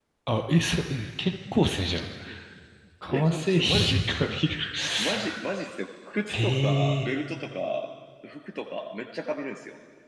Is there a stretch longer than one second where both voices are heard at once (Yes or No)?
Yes